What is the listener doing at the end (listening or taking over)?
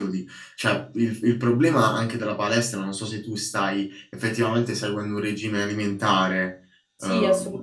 taking over